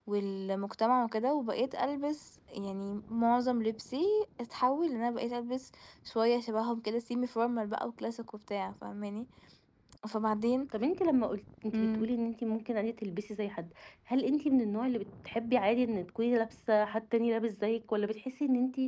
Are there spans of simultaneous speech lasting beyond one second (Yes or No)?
No